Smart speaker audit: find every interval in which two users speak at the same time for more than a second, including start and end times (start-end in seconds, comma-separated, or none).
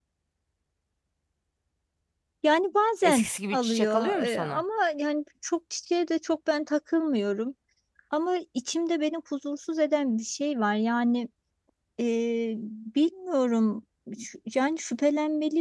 3.0-4.6